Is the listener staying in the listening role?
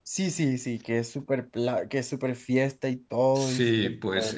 No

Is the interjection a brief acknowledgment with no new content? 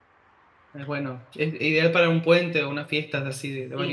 No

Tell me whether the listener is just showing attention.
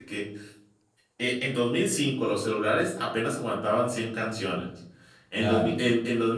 Yes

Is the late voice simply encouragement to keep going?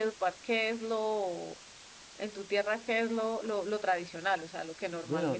No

